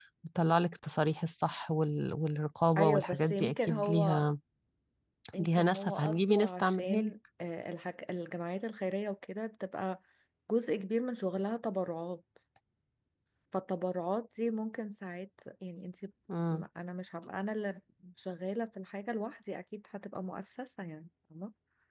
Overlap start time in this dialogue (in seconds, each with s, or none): 2.8 s